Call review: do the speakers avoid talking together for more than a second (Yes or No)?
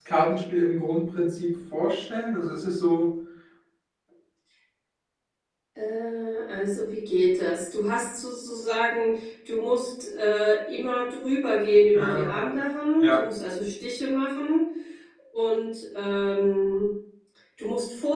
Yes